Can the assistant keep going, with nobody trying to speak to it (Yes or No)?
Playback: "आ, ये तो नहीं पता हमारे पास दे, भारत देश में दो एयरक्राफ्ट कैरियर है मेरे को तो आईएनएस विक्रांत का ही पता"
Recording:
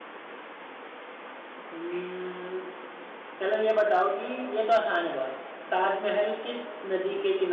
No